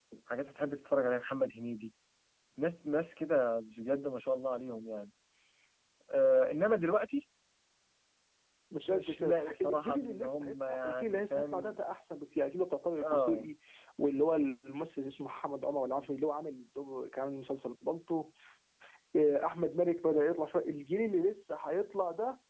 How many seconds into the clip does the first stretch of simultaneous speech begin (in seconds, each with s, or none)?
8.9 s